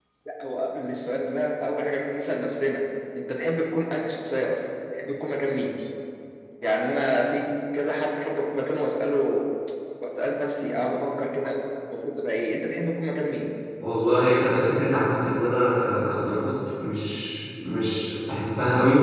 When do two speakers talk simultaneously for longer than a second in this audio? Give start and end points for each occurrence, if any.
none

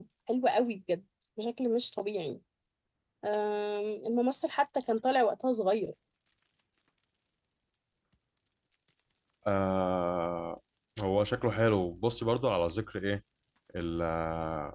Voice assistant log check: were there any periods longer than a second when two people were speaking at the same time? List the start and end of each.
none

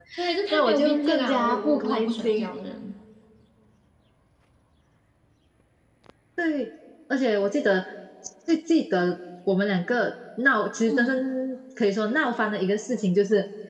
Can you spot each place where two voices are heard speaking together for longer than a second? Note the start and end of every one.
0.5-2.5

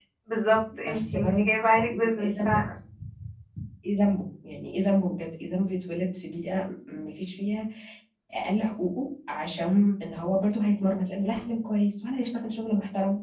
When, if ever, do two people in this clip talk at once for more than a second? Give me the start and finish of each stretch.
0.8-2.5

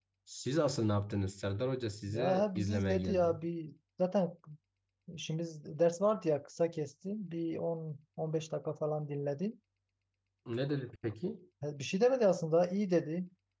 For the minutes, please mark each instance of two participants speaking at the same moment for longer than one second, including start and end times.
2.1-3.4

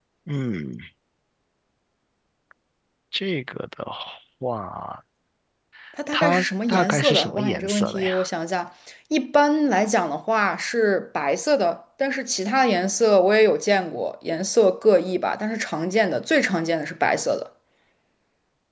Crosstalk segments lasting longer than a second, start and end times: 6.1-8.1

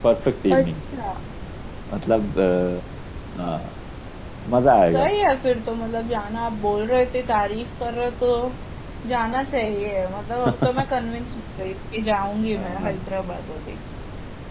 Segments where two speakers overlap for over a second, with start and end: none

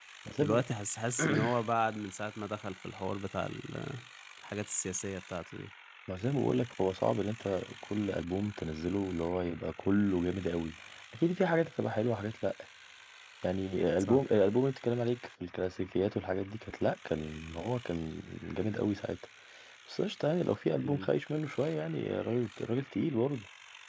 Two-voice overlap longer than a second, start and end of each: none

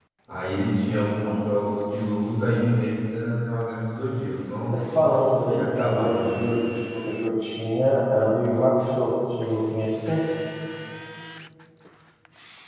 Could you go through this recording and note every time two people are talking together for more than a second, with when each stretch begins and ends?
4.7-6.7

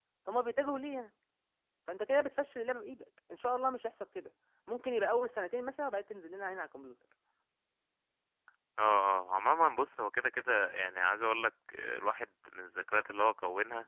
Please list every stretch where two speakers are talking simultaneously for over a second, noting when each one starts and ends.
none

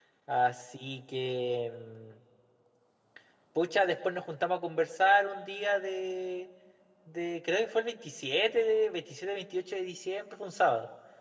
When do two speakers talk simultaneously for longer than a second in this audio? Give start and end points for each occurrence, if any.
none

